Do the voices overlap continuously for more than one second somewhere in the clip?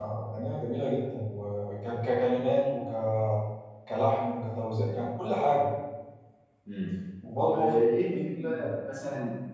Yes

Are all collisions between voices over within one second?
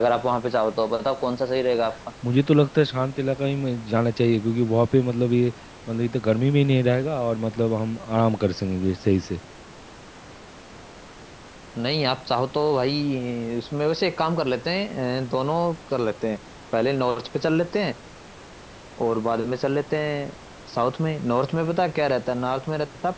Yes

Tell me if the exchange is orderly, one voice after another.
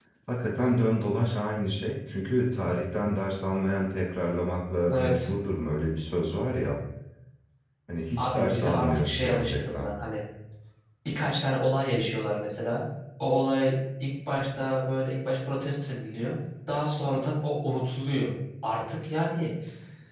No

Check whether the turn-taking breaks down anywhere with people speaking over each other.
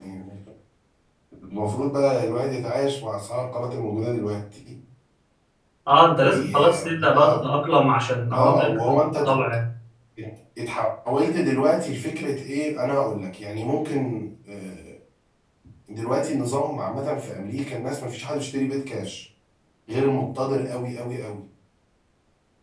Yes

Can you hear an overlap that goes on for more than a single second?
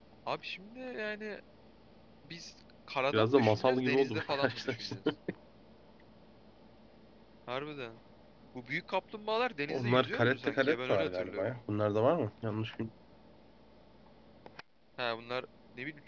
Yes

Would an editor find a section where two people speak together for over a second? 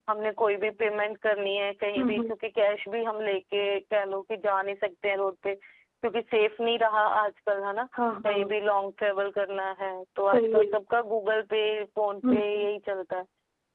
No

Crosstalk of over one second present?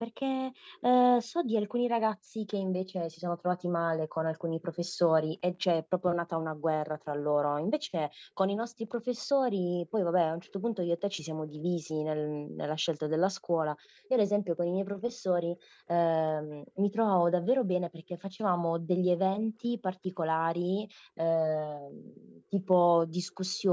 No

